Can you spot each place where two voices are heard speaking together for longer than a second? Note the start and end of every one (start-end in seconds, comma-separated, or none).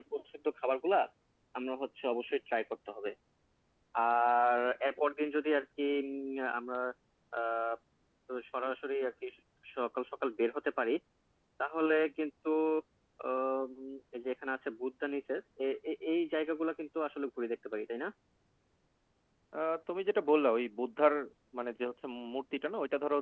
none